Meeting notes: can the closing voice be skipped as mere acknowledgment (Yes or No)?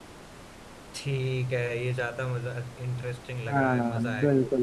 No